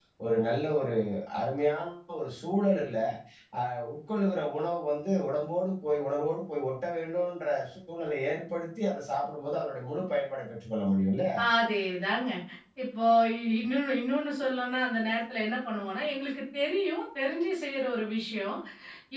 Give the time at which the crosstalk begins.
none

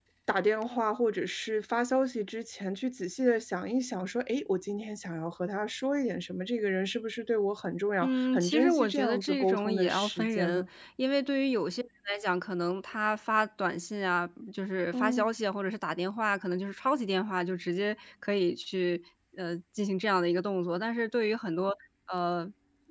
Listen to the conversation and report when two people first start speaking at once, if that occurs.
8 s

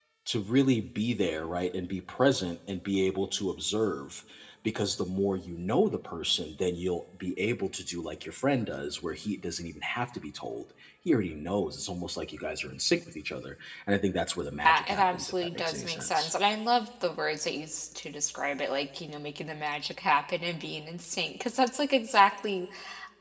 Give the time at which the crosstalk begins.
15 s

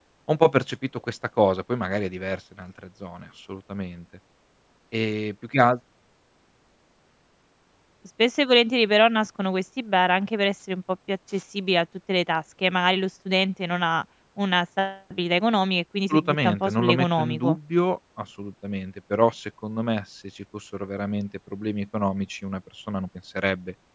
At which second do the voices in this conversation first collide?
16 s

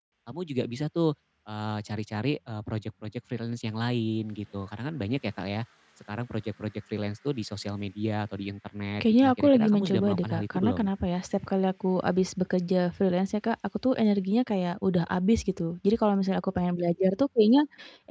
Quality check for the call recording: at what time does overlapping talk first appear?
9 s

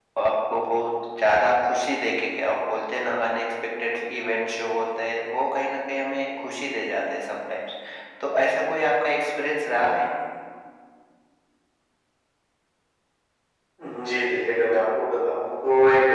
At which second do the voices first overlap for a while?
none

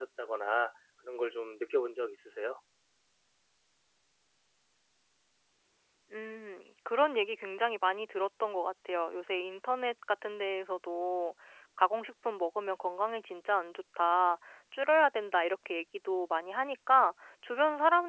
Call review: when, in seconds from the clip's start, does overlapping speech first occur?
none

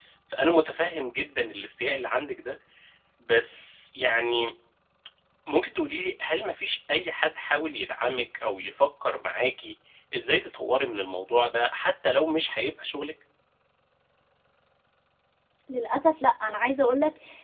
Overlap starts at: none

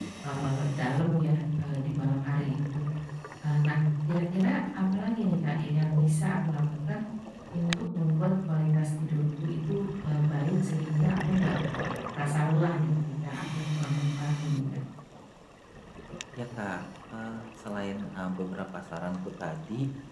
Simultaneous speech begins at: none

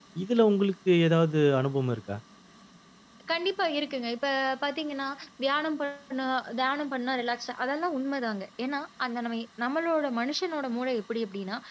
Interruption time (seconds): none

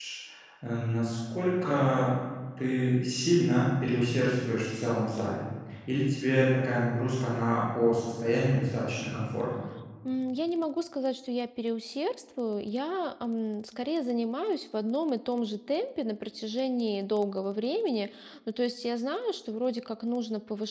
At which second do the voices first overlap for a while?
none

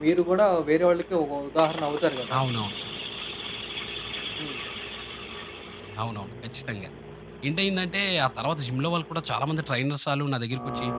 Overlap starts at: none

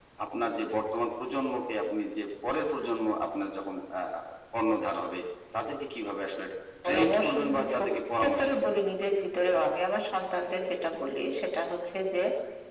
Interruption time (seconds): 7 s

